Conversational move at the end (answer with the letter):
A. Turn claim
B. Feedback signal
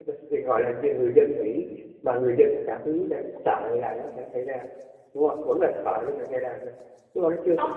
A